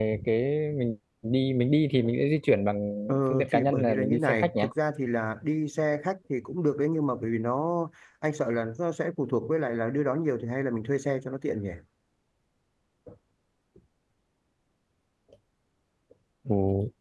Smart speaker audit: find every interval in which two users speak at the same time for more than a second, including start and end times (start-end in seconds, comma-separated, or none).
3.3-4.7